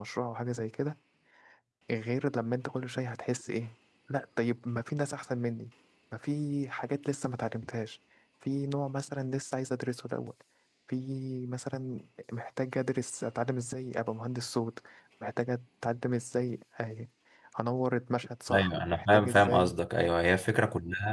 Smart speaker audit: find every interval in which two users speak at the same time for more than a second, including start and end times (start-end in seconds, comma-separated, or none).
18.5-19.8